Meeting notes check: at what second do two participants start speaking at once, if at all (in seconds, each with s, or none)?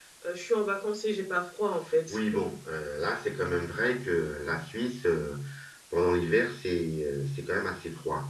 none